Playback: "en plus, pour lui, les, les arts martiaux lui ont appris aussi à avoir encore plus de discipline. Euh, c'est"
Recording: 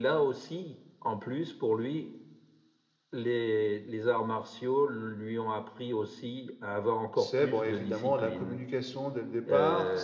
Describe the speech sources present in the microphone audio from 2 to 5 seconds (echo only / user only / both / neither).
echo only